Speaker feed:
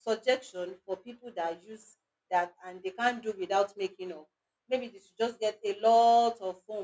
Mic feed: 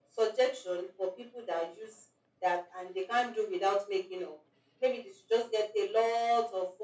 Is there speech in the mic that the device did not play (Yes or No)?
No